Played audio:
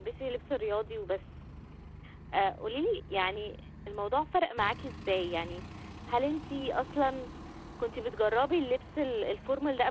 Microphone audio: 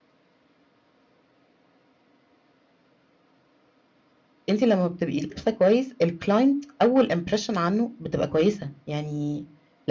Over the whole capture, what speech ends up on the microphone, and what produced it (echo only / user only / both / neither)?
user only